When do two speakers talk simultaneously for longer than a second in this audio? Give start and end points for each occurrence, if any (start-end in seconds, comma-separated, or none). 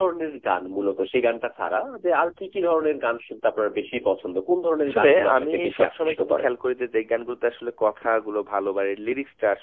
4.9-6.5